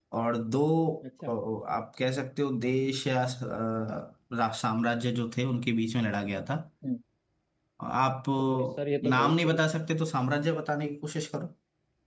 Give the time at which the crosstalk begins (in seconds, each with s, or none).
8.4 s